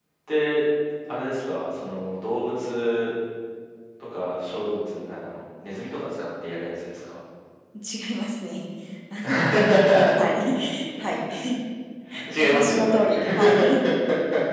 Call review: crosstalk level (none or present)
present